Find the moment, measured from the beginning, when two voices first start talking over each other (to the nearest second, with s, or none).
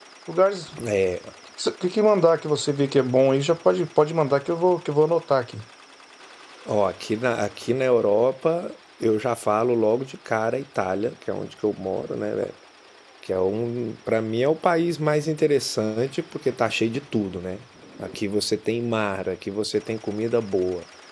none